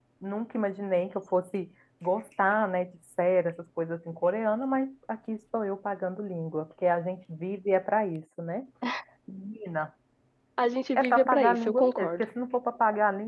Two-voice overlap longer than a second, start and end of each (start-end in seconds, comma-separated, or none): 11.0-12.2